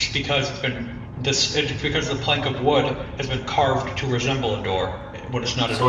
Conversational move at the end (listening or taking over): taking over